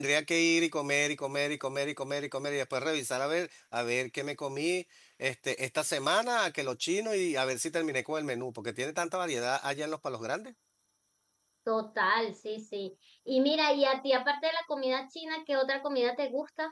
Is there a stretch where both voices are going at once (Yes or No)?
No